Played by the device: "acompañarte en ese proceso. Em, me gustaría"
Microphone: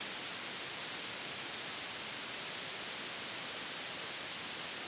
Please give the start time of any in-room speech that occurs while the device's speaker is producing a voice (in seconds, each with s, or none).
none